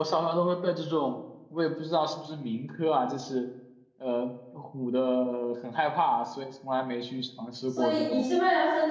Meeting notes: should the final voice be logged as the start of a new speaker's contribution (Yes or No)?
Yes